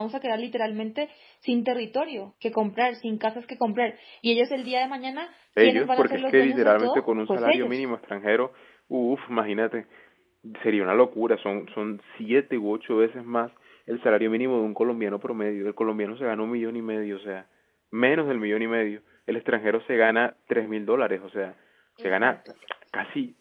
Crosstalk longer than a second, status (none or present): present